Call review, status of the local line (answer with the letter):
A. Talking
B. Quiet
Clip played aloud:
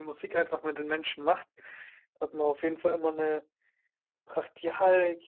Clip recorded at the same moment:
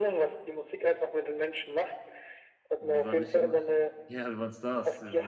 A